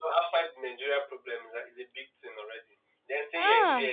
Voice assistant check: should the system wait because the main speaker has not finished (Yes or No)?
Yes